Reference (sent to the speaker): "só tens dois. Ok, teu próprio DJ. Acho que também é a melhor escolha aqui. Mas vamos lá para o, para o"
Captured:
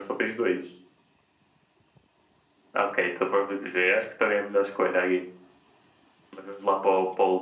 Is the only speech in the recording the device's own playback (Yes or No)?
Yes